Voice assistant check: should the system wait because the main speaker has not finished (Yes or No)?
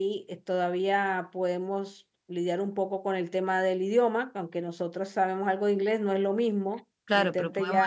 No